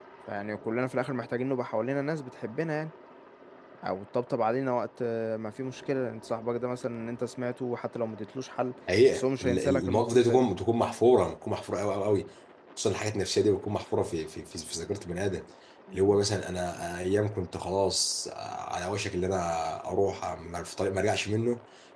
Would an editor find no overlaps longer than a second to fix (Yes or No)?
No